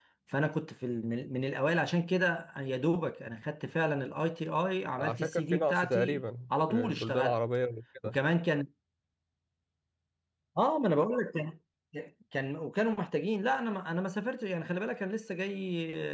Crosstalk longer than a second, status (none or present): present